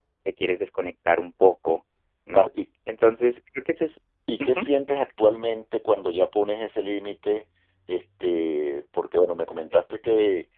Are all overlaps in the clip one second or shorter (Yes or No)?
Yes